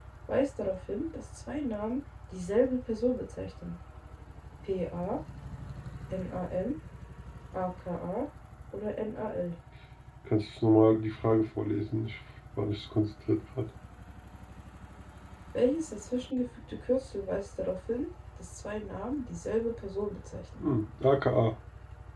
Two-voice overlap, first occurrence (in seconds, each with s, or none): none